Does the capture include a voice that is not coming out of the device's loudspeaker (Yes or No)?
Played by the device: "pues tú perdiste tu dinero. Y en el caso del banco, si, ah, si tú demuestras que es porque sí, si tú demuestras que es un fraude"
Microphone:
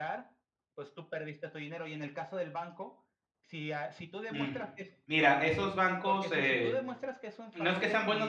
Yes